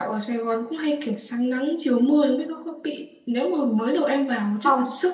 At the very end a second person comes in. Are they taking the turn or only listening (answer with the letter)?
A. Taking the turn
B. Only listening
B